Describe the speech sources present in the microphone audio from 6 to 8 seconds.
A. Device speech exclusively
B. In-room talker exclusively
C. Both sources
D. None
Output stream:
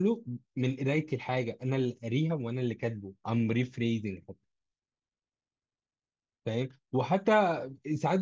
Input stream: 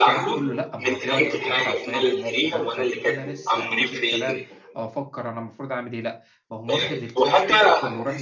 C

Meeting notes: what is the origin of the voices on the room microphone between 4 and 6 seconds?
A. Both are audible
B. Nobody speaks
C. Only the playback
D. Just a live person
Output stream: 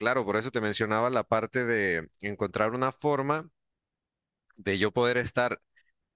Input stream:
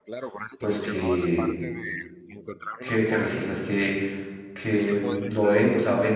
A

